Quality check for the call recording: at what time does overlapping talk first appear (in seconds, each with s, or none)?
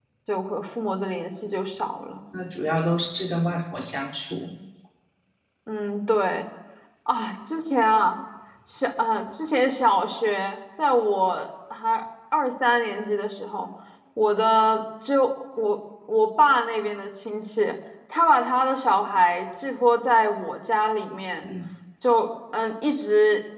none